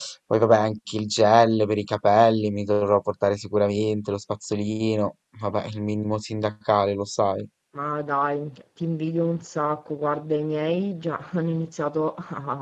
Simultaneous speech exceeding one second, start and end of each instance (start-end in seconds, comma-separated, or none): none